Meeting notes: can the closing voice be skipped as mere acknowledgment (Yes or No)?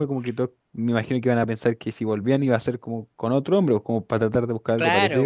No